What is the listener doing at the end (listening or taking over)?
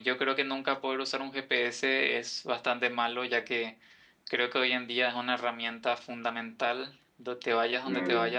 taking over